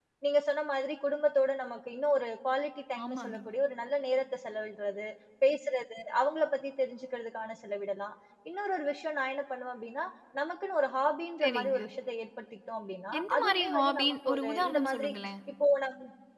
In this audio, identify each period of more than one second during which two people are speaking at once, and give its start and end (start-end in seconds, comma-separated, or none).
13.2-15.1